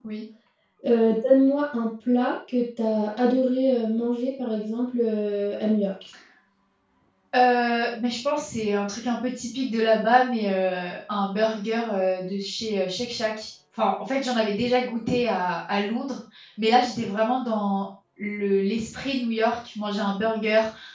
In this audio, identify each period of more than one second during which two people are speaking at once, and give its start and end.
none

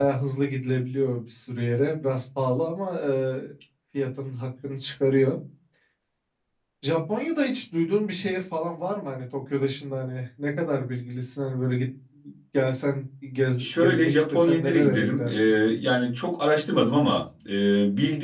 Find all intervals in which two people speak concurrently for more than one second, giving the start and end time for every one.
13.6-15.3

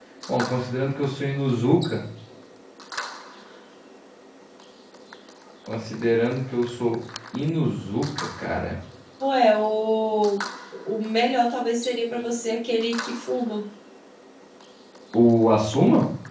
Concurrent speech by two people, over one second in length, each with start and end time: none

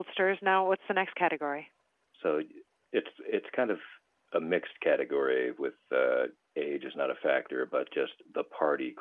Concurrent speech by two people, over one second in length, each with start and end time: none

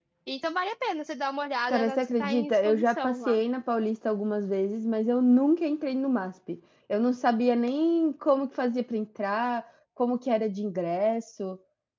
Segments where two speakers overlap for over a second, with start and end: 1.7-3.4

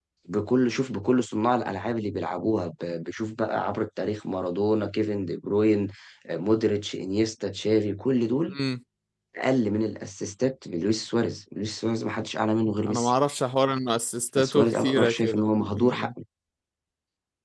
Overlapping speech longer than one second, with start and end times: 14.4-16.1

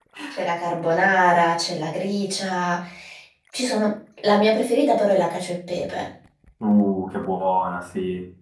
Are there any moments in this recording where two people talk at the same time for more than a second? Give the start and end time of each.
none

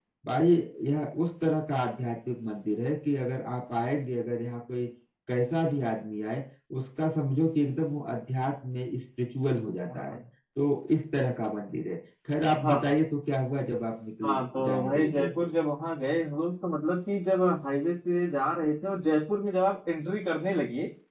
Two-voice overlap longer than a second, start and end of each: 14.2-15.5

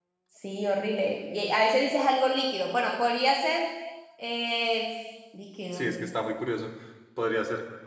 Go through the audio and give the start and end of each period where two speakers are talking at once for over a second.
none

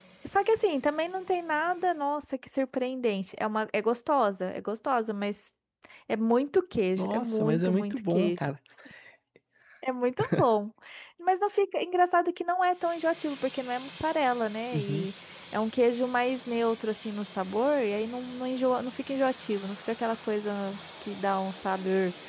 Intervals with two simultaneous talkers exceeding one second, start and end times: 7.0-8.4

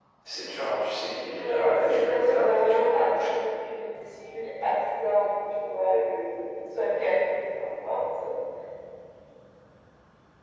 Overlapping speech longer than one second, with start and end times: 1.4-3.4

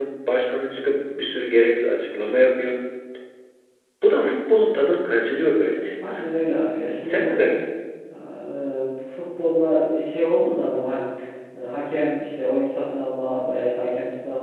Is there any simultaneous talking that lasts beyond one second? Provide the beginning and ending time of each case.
none

